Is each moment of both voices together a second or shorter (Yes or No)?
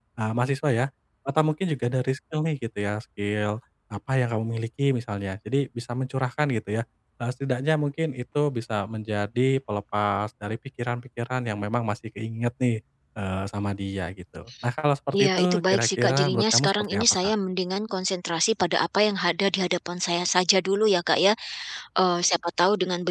No